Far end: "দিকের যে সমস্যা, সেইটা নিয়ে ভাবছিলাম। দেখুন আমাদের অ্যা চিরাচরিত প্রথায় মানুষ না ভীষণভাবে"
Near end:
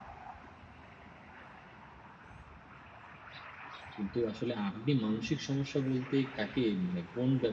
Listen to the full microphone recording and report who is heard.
user only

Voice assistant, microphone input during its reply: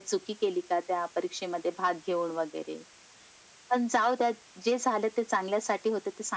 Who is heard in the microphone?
echo only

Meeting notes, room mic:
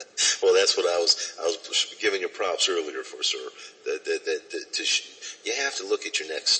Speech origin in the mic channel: echo only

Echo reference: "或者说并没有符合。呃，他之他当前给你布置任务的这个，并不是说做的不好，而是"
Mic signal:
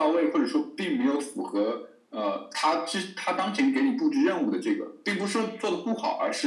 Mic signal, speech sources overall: echo only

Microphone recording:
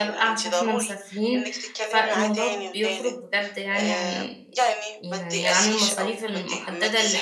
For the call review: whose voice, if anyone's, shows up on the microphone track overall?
both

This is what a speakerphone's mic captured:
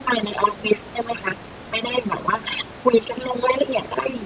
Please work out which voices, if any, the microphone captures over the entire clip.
echo only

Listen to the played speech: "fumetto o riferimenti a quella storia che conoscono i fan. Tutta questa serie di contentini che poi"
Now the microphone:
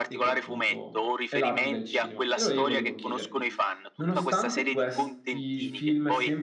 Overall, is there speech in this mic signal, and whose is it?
both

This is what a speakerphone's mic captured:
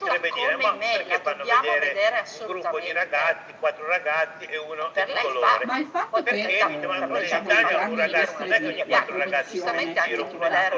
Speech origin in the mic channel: both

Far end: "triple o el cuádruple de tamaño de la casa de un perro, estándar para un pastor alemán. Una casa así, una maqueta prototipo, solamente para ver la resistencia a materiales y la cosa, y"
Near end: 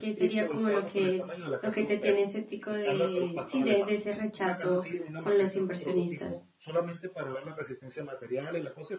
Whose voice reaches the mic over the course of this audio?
both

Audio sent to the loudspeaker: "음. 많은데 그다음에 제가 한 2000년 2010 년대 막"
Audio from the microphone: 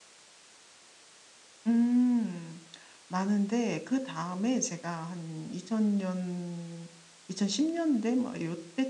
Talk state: echo only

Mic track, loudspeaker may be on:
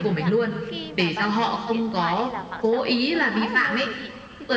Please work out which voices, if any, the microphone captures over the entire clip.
both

